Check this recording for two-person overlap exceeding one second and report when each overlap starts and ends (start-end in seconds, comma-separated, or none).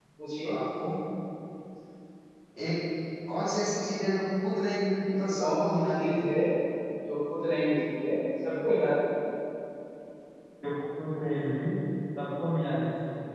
5.1-6.3